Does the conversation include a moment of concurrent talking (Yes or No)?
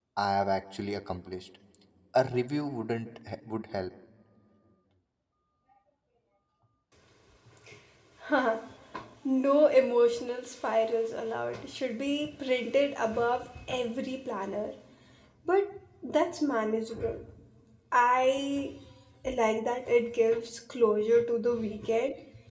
No